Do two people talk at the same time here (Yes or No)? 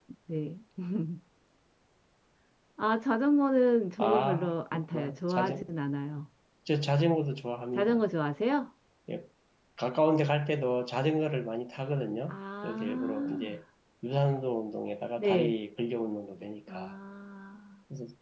Yes